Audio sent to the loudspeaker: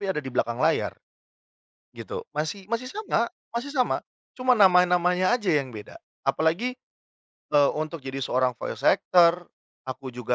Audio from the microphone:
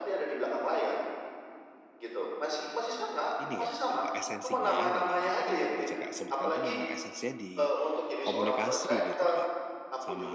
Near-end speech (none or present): present